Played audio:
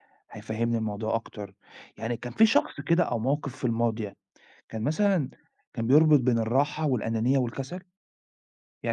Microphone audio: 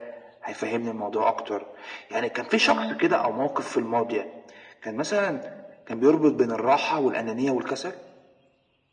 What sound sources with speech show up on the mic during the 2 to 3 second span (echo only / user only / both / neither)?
both